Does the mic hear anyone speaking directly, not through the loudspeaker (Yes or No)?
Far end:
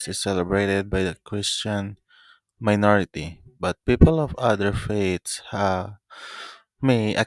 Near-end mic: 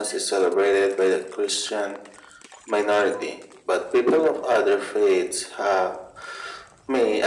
No